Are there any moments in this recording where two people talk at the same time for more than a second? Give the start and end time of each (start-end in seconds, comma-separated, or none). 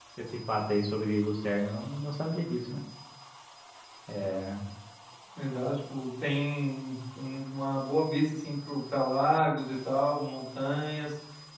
none